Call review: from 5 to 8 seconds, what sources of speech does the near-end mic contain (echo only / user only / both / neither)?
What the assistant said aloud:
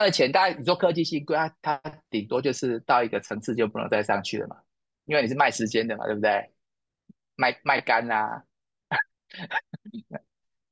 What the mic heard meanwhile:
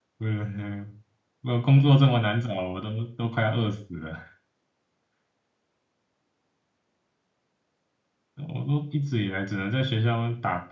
neither